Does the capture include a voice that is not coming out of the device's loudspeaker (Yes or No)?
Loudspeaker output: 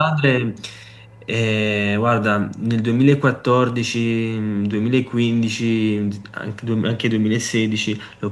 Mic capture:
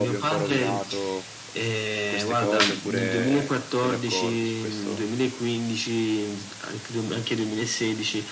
Yes